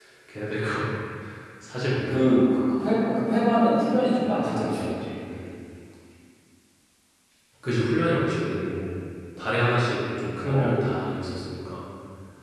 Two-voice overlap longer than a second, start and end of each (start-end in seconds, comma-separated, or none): none